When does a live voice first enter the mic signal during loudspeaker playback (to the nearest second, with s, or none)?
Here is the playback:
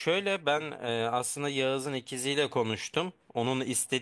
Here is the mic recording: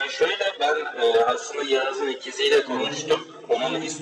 3 s